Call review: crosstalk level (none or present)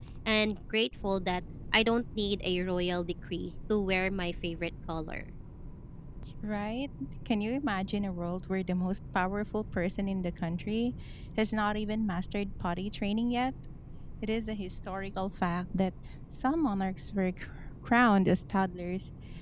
none